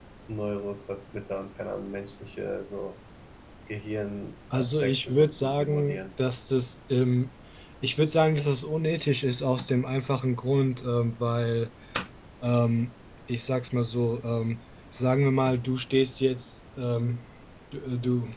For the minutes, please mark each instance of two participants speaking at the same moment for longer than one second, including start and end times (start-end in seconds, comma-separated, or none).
4.5-6.0